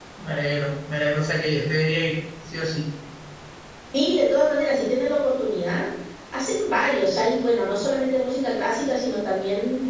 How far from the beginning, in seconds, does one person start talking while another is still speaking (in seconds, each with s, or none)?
none